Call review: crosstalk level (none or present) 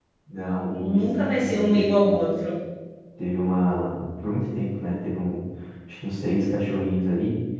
present